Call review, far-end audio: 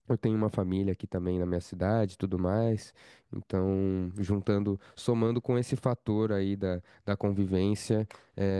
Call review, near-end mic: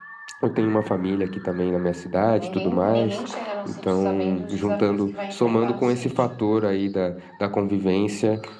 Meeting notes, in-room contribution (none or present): present